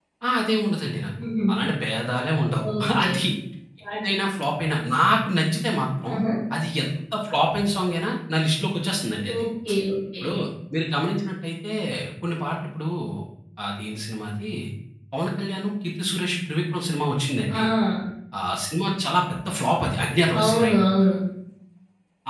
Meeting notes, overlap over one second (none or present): none